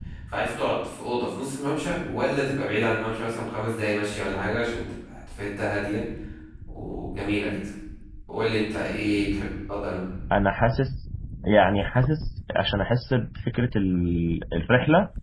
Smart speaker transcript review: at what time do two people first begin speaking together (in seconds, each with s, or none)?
none